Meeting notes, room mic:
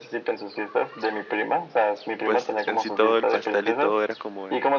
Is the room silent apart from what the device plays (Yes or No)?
No